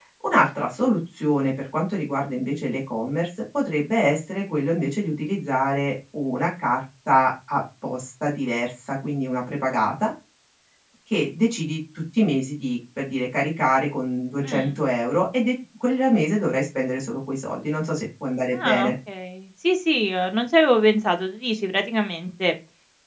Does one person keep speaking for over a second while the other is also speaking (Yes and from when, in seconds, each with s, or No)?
No